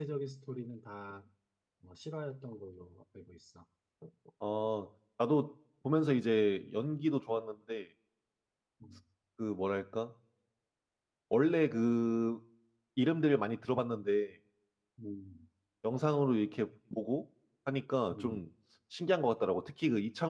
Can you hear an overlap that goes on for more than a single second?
No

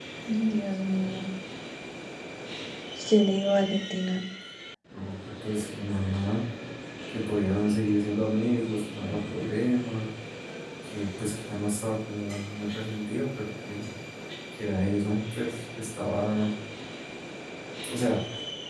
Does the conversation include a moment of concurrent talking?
No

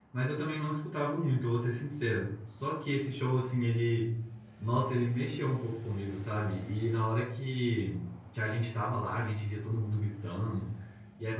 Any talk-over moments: No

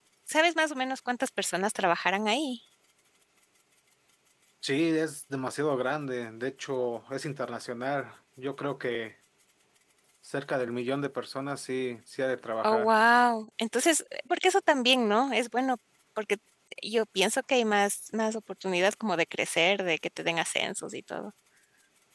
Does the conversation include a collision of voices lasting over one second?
No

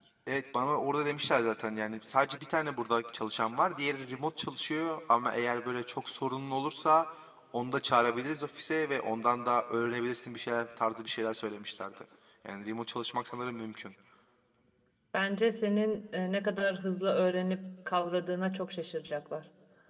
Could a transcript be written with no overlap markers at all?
Yes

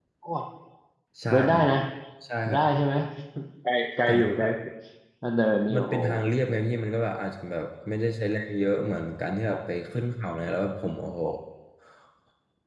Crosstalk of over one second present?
No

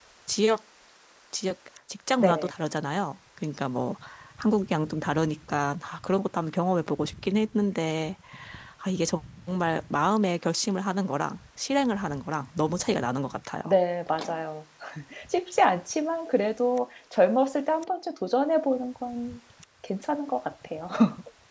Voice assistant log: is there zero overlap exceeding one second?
Yes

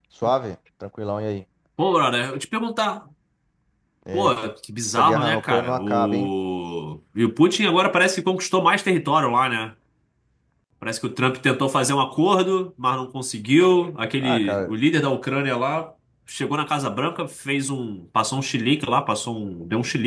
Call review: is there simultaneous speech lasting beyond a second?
Yes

